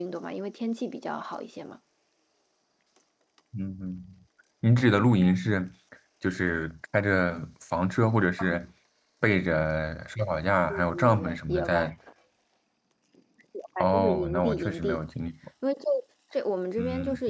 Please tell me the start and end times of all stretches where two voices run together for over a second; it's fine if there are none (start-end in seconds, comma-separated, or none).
10.7-11.9, 13.8-15.0